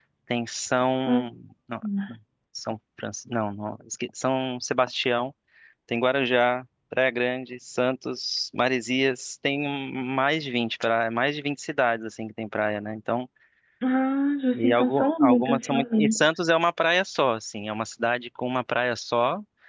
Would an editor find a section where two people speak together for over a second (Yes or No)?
Yes